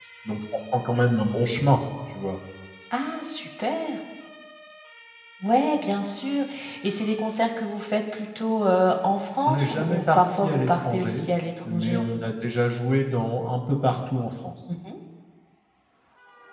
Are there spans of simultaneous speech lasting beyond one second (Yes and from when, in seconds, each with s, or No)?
Yes, from 9.4 s